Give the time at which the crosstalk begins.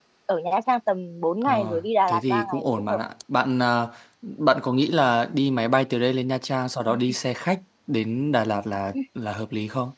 1.4 s

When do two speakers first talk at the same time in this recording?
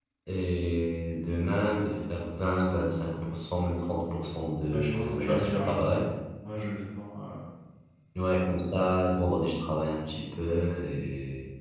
4.7 s

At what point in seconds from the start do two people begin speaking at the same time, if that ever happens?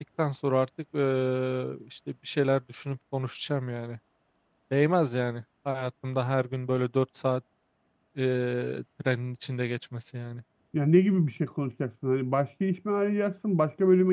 none

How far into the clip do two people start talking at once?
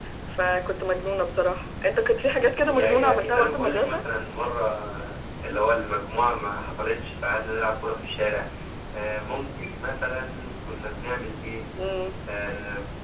2.6 s

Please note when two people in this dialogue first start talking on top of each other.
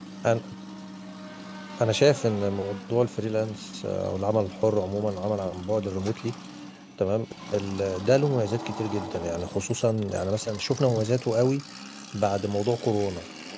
none

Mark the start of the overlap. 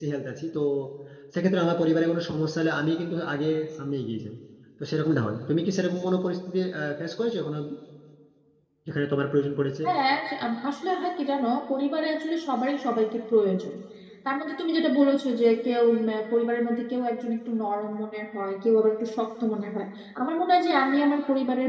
none

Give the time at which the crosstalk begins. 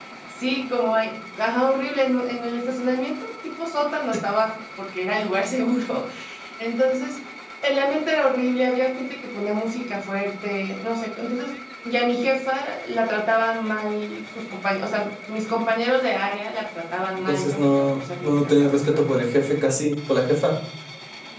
17.3 s

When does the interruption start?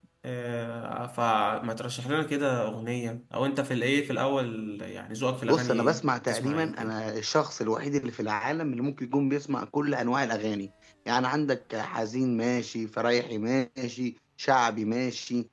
5.5 s

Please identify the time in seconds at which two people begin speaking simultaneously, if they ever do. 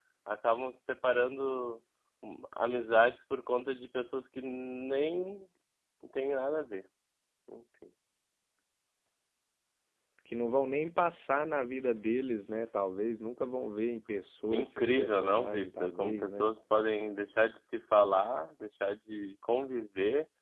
14.5 s

